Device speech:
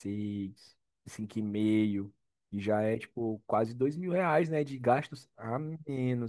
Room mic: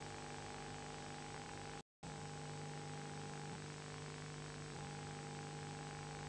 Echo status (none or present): none